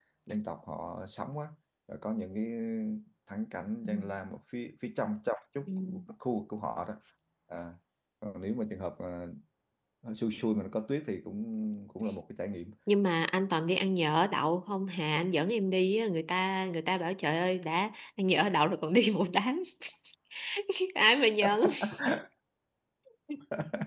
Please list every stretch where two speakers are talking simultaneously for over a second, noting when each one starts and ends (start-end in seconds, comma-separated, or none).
none